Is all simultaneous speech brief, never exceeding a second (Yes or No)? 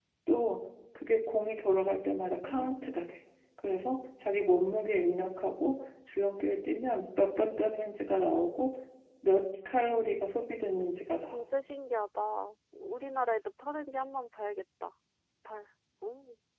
Yes